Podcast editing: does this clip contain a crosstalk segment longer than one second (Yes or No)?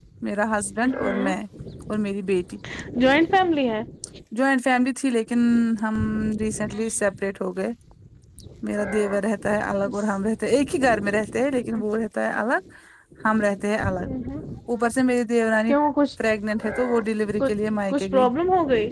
No